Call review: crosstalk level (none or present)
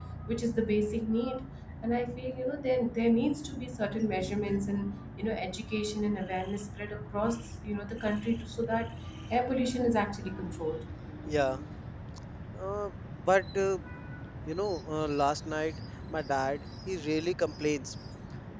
none